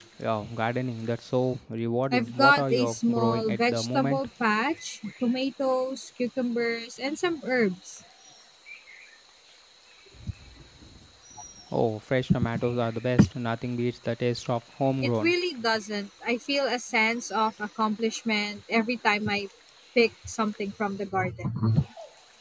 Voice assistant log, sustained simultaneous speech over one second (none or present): present